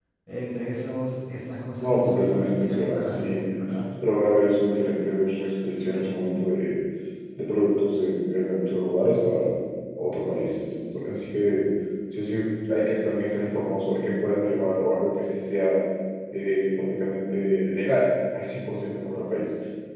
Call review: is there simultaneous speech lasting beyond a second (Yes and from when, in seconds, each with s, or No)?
Yes, from 1.8 s